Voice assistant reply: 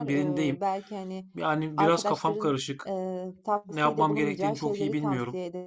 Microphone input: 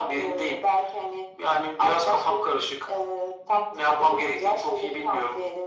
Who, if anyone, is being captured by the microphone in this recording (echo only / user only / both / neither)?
echo only